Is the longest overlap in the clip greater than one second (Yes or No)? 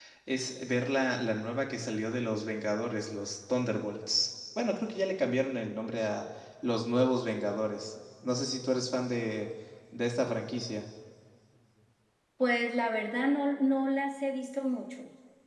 No